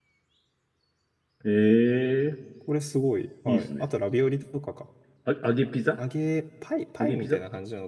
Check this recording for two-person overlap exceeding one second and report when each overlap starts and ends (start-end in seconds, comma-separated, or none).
none